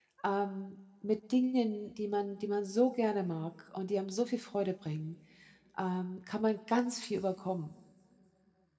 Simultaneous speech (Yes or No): No